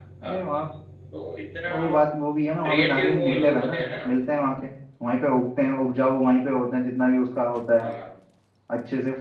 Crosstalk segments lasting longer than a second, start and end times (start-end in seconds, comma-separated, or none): 2.6-3.9